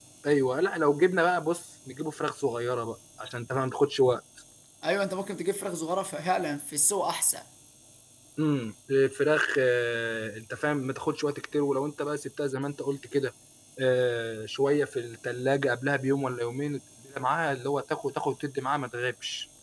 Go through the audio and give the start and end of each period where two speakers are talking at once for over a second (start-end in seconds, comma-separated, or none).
none